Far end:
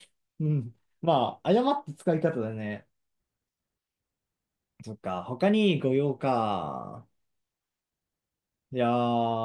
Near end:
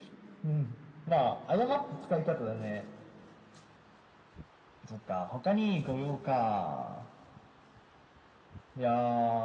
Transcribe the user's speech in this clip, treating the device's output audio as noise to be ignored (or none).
none